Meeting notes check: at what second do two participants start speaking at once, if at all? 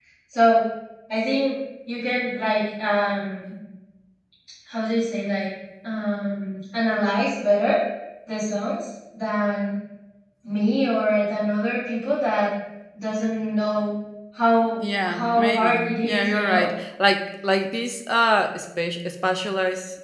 15 s

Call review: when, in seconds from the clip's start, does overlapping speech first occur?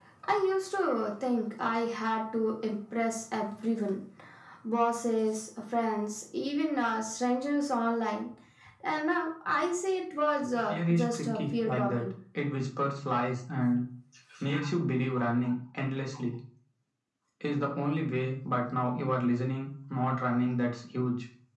11 s

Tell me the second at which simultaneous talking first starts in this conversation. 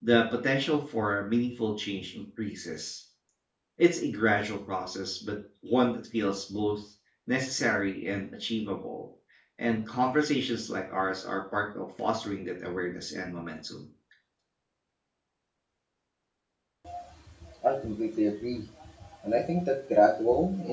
none

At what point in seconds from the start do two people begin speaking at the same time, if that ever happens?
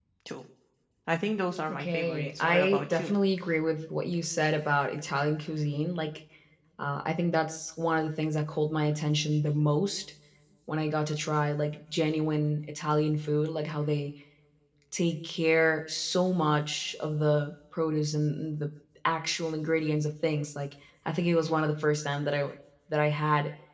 2 s

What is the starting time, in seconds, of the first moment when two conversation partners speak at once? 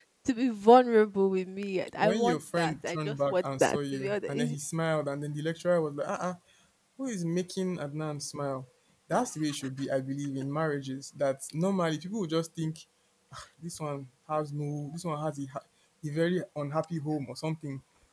2 s

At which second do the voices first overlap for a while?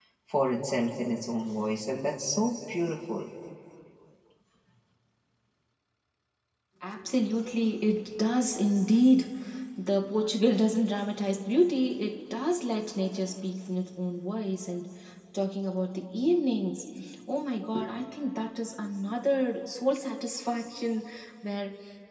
none

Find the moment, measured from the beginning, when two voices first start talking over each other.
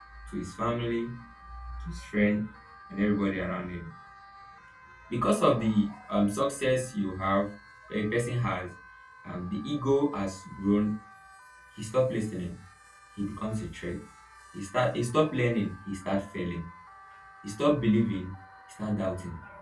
none

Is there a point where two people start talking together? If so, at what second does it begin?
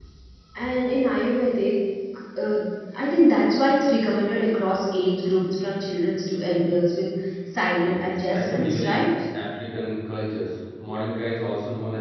8 s

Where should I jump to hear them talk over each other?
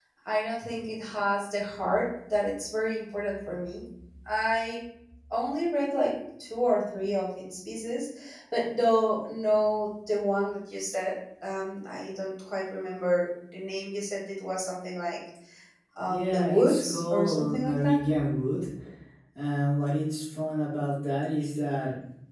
16 s

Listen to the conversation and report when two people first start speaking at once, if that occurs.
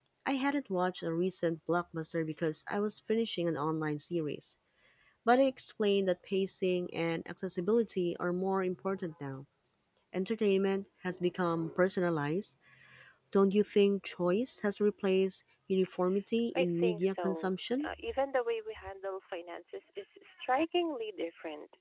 17 s

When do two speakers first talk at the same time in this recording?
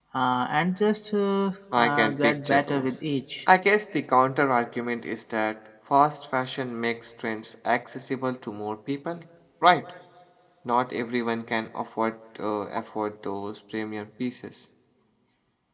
2 s

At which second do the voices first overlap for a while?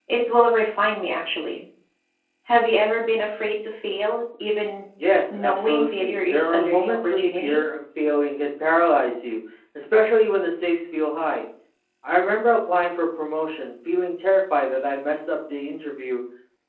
5 s

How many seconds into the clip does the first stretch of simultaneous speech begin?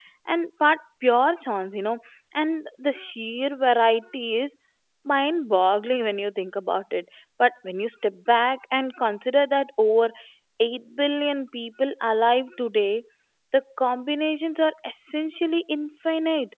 none

